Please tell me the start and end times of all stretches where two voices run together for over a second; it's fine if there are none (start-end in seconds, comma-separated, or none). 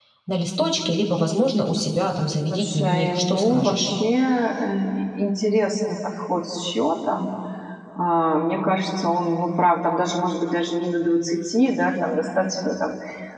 2.5-3.9